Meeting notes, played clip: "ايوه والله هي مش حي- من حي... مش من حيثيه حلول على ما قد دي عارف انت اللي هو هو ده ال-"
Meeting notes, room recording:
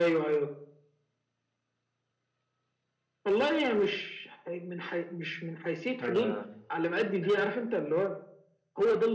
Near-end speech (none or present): present